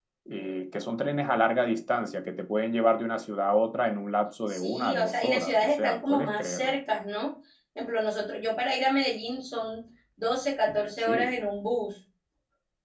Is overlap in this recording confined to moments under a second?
No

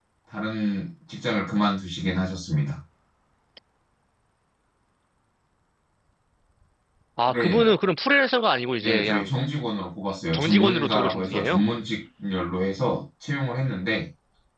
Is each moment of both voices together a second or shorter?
No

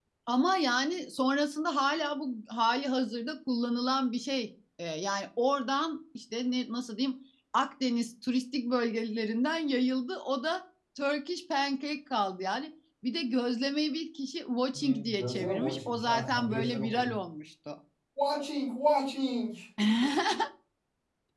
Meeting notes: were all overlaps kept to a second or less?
No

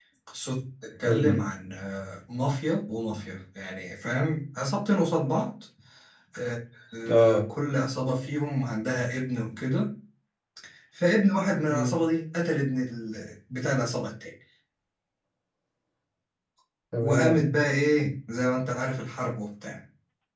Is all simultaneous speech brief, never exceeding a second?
Yes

